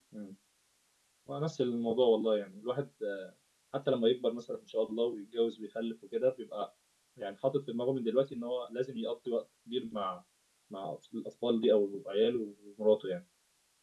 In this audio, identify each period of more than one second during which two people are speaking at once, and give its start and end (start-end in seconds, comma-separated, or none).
none